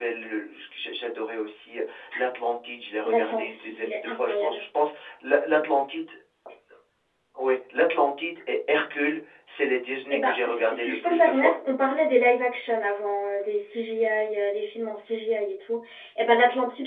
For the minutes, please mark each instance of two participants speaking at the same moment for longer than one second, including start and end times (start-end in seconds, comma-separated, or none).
3.0-4.6, 10.1-11.5